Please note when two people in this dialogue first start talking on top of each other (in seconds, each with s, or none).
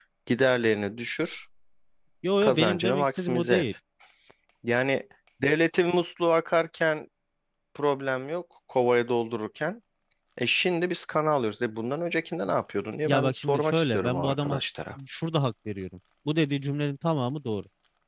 2.4 s